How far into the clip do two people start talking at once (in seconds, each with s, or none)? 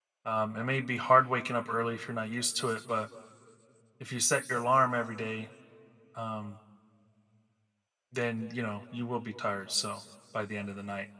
none